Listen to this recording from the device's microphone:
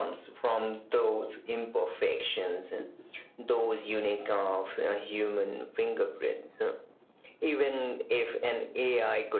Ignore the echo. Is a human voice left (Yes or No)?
No